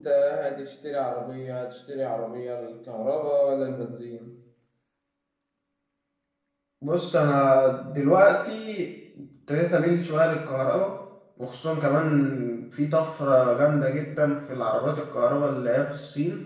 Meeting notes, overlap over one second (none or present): none